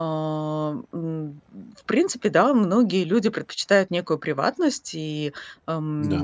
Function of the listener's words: listening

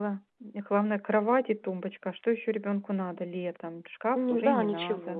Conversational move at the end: taking over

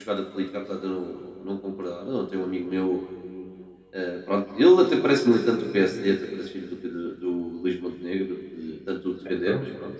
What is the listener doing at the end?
listening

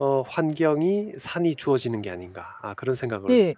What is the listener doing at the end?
taking over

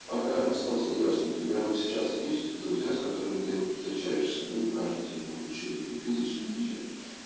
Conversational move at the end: taking over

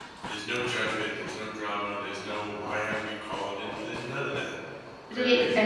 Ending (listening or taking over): taking over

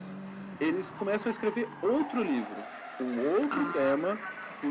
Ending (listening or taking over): listening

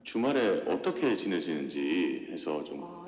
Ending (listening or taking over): taking over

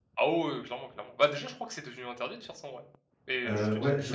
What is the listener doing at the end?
taking over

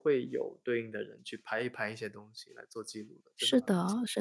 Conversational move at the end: taking over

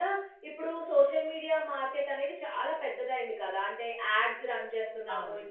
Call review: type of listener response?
listening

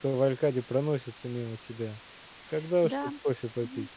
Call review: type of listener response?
taking over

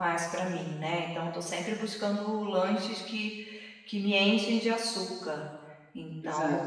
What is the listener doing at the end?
listening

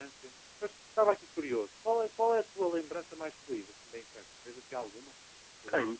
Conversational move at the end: taking over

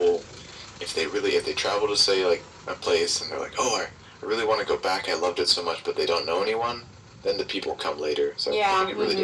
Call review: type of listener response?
taking over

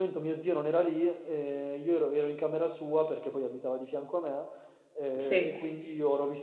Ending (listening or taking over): listening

